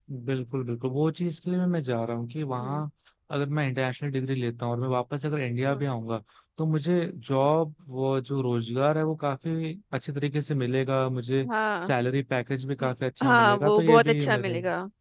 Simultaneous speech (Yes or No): Yes